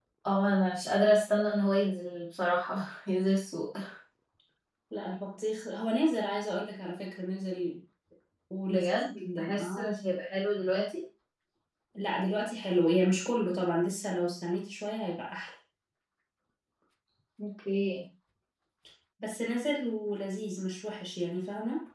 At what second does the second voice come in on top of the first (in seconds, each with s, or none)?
8.7 s